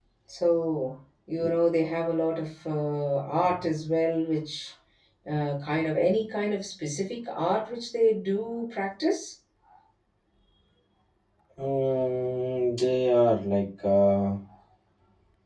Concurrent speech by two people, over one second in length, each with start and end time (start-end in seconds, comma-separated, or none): none